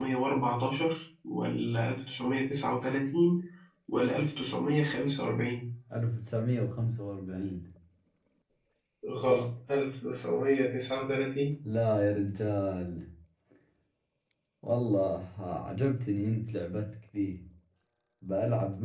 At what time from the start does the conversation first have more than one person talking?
none

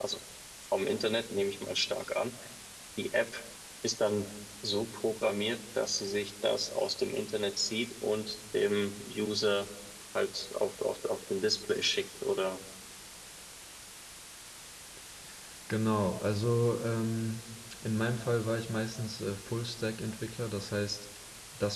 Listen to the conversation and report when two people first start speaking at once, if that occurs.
none

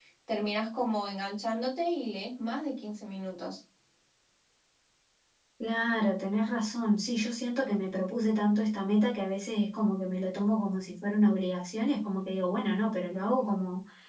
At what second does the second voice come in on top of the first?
none

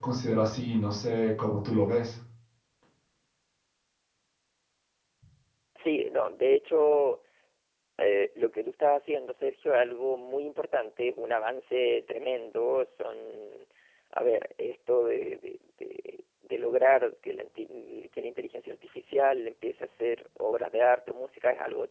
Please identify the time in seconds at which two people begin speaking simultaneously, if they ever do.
none

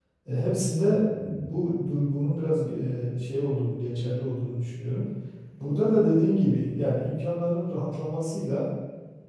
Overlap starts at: none

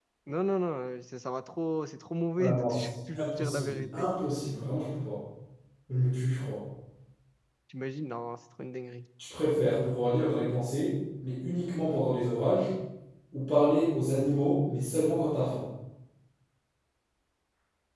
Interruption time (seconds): 2.4 s

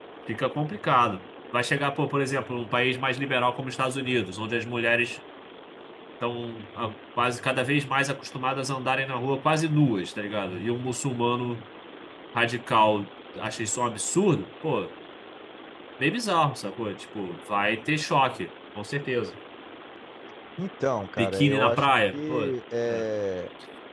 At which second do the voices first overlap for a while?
21.2 s

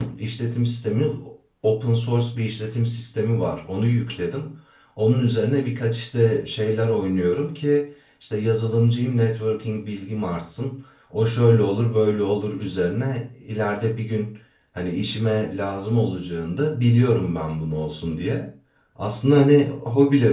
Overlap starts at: none

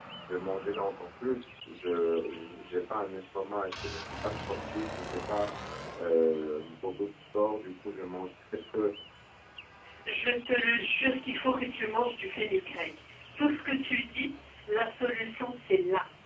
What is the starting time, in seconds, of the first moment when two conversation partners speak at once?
none

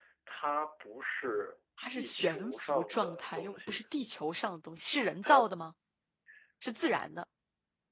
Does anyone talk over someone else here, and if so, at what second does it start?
1.9 s

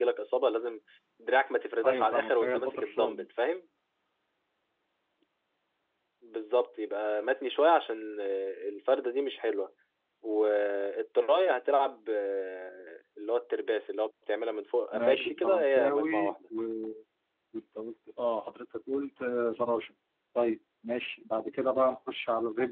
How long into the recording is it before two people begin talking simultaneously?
1.9 s

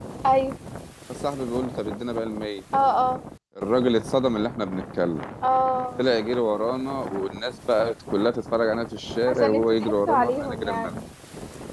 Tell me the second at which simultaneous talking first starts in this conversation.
9.3 s

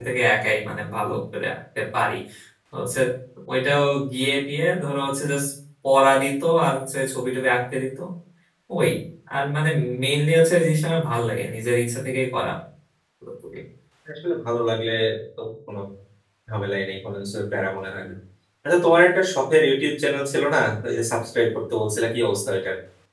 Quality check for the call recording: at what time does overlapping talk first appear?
none

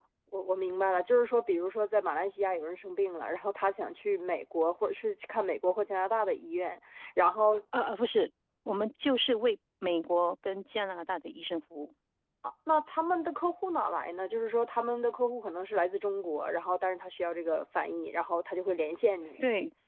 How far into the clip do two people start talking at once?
none

